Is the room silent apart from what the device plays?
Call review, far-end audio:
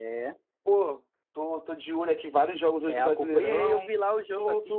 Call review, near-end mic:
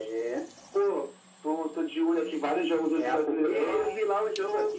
Yes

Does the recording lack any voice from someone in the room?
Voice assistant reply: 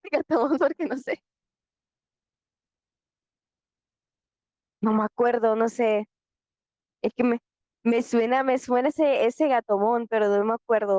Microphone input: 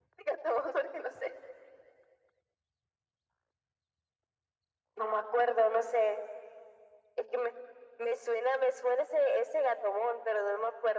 Yes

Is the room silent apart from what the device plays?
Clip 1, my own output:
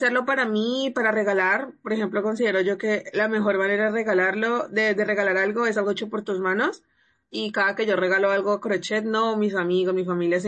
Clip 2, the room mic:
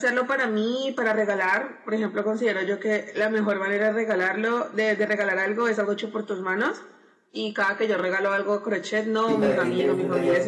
No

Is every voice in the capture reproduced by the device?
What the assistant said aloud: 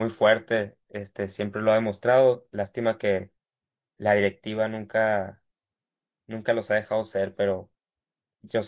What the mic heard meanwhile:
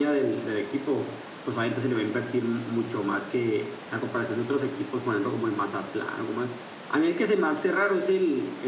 No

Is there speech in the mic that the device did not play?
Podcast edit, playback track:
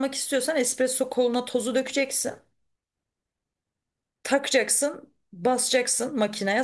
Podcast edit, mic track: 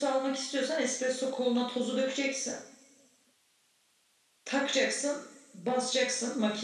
No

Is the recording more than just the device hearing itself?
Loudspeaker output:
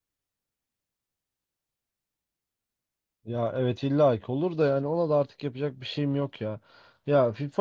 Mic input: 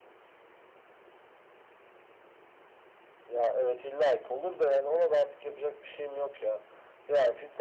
No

